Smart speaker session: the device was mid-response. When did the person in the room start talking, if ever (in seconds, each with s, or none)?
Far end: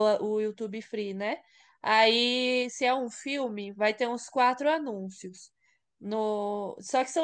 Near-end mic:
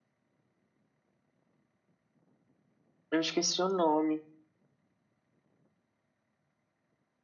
3.1 s